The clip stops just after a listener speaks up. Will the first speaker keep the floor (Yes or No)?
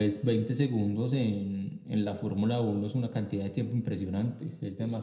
No